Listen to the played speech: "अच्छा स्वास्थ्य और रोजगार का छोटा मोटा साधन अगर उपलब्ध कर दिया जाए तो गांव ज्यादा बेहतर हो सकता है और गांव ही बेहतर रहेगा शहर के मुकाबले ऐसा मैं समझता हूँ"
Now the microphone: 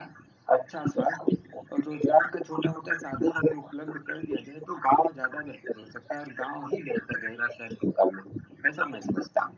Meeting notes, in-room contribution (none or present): none